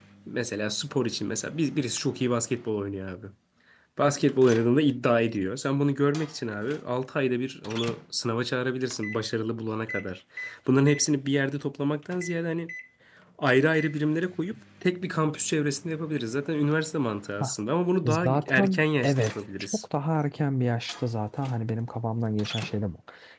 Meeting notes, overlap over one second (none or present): present